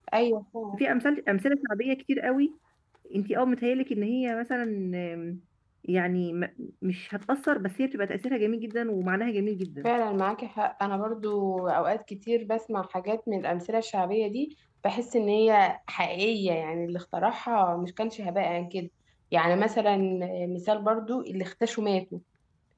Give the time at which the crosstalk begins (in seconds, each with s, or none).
none